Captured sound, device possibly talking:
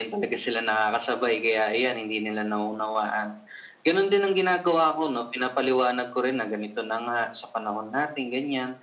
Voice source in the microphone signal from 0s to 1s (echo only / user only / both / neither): echo only